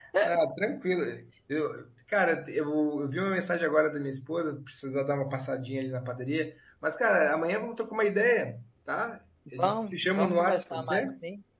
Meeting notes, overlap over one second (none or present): present